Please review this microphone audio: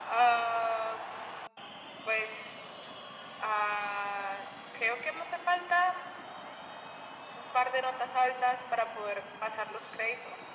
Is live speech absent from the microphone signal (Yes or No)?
Yes